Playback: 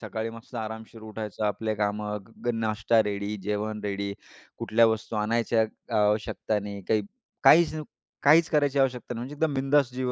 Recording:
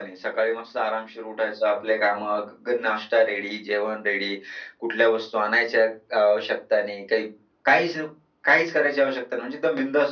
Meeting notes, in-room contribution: none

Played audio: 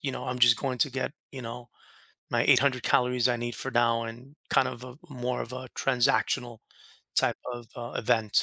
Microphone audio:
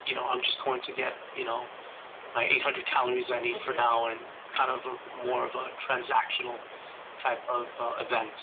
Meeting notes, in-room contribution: present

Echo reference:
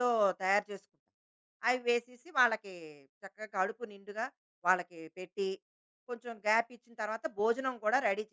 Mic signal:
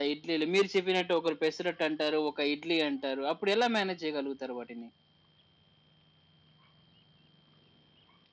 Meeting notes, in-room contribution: present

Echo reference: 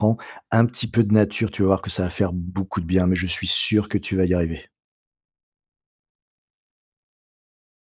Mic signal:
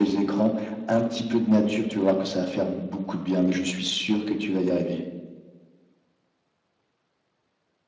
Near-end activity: none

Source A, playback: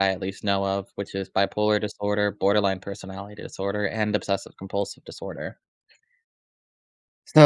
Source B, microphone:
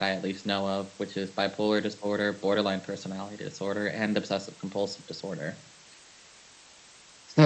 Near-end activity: none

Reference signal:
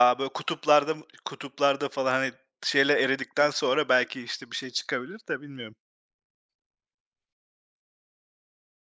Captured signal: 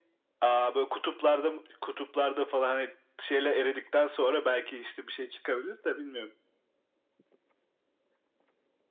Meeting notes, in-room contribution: none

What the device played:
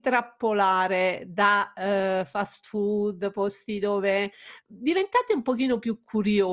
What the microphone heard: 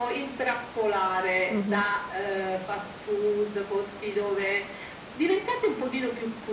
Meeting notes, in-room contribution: present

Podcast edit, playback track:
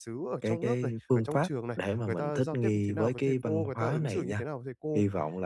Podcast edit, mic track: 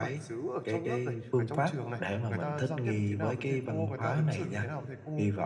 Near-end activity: none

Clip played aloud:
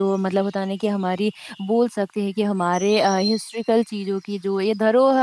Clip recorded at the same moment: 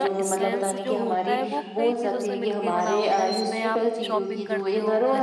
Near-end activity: present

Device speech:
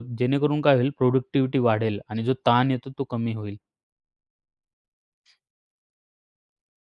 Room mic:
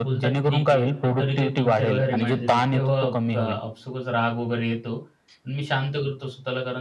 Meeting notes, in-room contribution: present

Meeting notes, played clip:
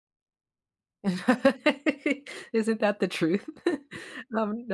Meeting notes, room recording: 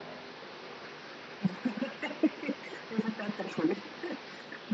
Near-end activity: none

